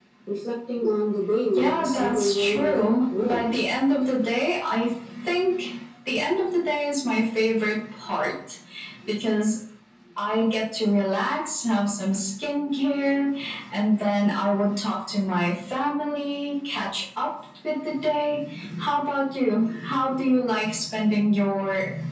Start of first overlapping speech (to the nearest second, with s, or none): 2 s